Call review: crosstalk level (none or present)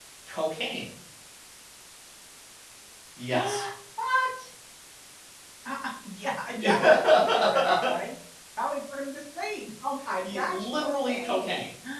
present